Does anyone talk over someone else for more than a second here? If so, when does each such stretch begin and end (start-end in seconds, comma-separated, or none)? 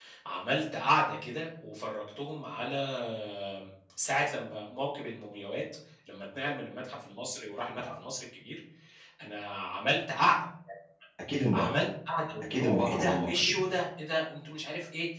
12.4-13.6